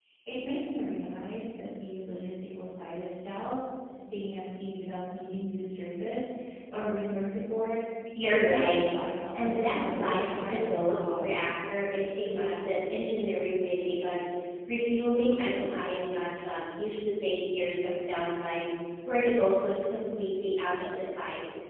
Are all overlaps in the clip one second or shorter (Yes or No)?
No